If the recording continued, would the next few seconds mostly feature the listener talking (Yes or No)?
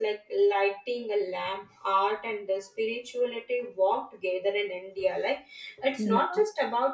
No